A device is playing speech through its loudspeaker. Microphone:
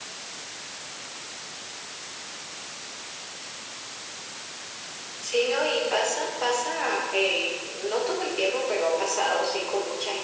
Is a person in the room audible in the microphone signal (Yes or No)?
No